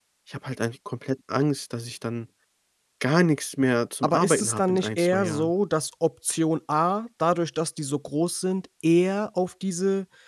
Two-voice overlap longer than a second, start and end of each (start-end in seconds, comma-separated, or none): 4.0-5.5